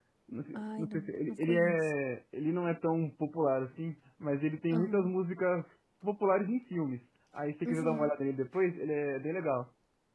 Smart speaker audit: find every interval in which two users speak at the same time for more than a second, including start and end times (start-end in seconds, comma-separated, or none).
0.5-1.9